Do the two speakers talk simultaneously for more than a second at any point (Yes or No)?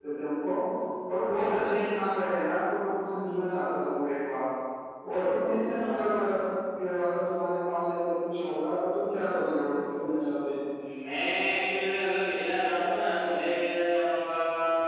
No